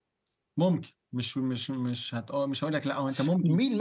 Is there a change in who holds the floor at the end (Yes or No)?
Yes